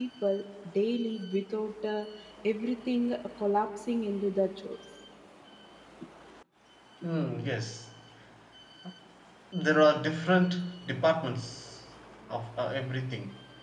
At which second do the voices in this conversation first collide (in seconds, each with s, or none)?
none